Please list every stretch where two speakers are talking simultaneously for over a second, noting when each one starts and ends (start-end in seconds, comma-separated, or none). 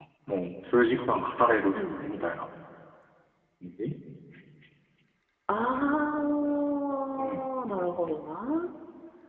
none